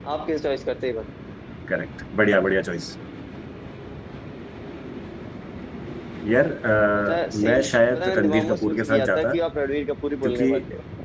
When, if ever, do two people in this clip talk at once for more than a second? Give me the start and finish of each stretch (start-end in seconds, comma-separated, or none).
6.9-9.3